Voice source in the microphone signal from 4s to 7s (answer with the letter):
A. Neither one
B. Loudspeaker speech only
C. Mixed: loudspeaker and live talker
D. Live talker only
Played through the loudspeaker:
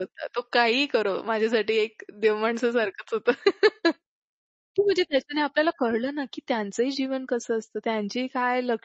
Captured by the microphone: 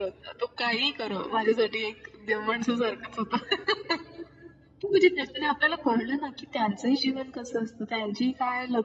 B